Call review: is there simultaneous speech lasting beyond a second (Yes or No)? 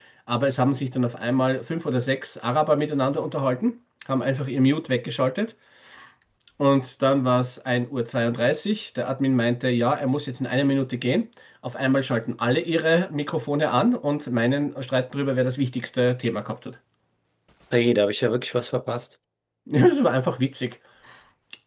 No